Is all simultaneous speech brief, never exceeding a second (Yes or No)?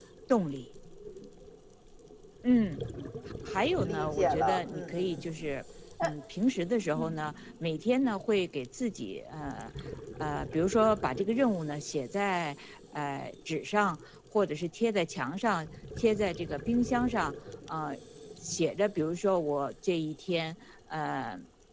No